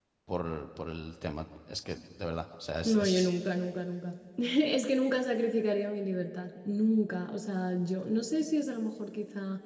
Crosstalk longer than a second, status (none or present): none